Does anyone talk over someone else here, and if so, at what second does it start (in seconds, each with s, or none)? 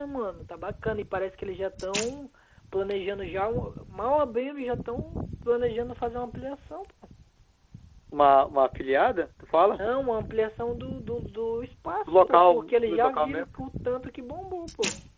12.1 s